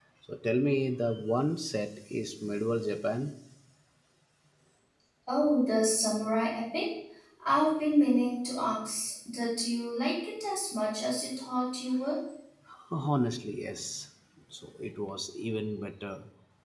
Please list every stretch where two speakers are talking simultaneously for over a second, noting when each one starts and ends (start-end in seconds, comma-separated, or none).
none